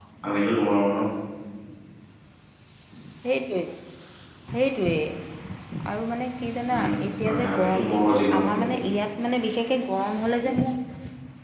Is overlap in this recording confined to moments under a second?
No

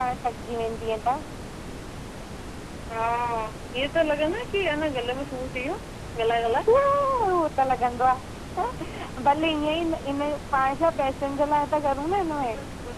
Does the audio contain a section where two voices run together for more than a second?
No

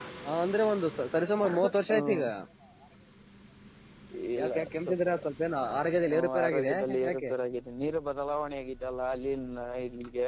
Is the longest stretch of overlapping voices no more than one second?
No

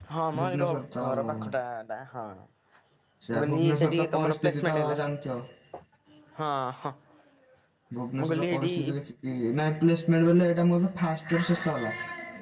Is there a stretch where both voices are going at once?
Yes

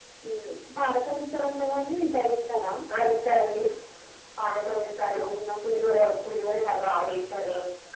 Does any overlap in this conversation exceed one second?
No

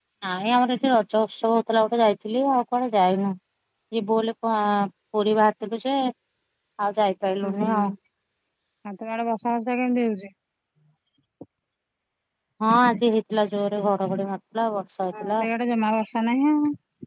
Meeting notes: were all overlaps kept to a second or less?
Yes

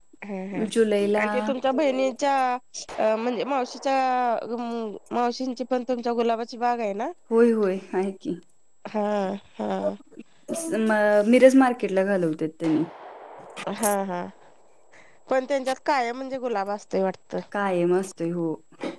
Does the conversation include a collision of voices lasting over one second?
No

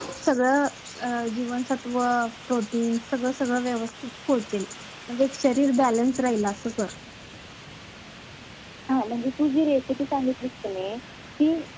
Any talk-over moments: No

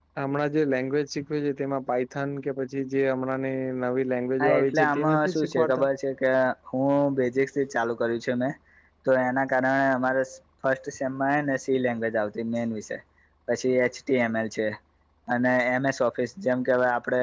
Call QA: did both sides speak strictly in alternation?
No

